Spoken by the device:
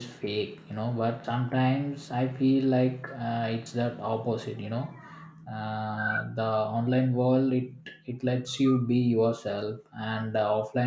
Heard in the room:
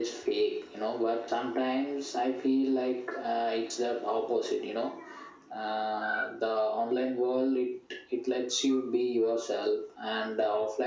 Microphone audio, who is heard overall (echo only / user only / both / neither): echo only